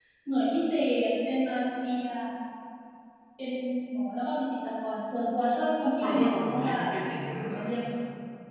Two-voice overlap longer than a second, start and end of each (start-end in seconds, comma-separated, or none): 6.0-7.6